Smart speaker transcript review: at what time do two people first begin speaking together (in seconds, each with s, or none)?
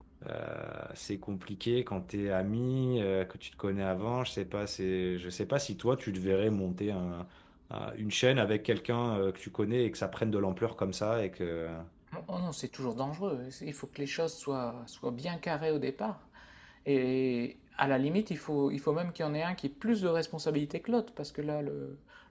none